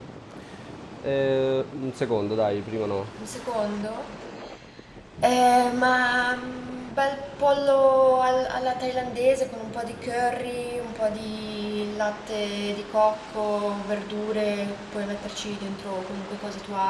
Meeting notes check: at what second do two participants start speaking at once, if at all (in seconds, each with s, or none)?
none